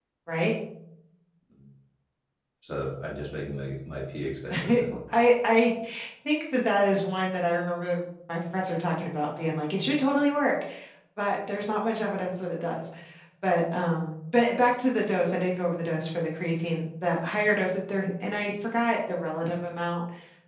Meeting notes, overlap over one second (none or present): none